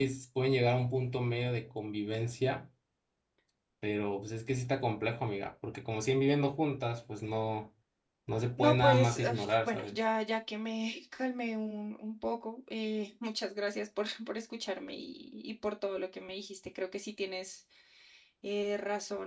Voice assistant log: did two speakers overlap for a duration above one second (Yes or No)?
Yes